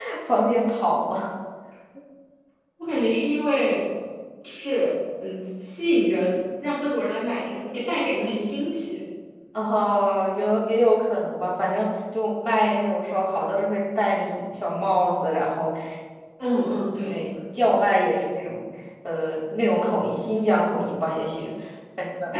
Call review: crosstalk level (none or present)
none